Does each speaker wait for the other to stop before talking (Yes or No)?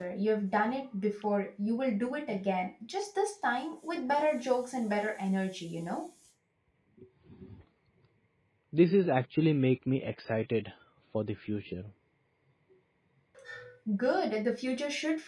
Yes